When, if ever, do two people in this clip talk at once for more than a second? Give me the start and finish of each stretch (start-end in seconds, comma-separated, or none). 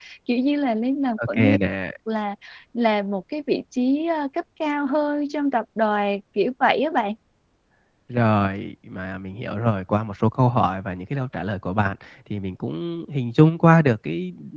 none